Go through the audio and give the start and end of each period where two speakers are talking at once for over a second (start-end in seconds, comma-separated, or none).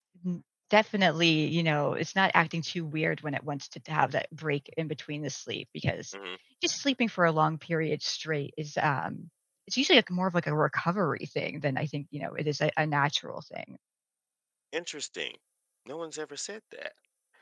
none